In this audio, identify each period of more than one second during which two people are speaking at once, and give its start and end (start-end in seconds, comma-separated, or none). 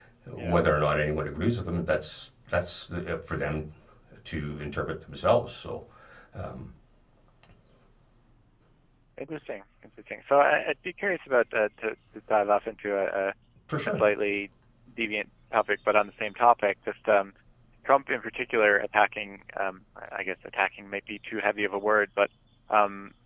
none